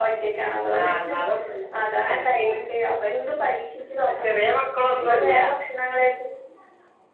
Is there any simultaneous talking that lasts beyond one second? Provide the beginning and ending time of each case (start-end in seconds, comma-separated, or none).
none